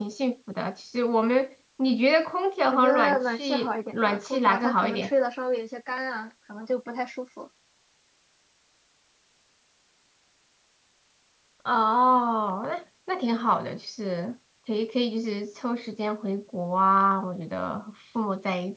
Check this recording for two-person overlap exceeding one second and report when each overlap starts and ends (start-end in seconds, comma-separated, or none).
2.7-5.1